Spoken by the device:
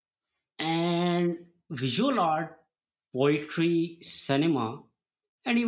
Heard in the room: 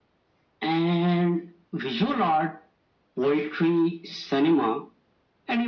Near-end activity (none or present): none